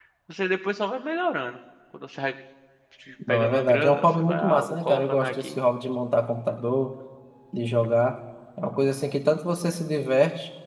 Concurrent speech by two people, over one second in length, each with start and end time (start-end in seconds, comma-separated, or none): 3.3-5.6